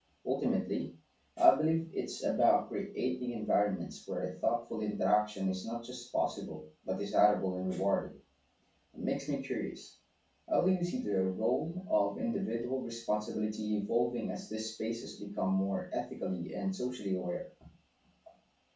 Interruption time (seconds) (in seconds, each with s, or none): none